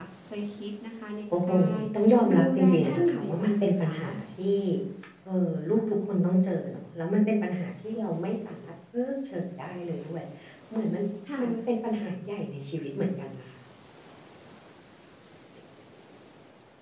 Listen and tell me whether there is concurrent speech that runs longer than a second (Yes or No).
Yes